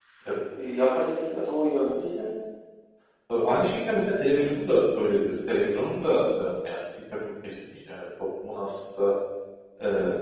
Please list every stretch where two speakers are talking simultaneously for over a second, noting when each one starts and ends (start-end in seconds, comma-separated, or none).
none